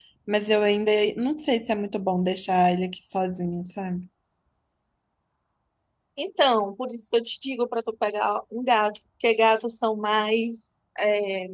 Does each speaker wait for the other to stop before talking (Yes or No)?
Yes